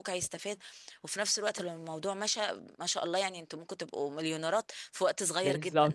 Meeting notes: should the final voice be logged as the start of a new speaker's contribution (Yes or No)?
Yes